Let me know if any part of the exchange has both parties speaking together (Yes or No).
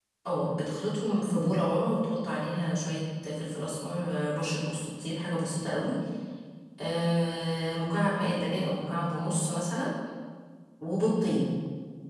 No